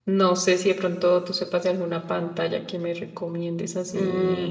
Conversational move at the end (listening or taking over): taking over